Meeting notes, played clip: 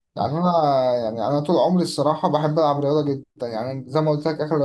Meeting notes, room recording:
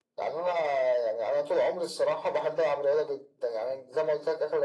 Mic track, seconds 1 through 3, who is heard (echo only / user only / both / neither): echo only